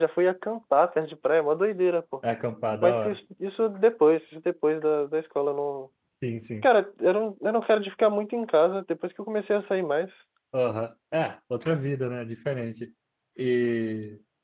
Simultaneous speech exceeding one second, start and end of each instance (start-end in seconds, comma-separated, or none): none